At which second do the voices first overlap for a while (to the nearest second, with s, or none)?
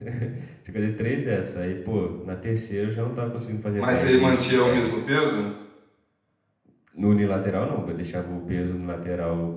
4 s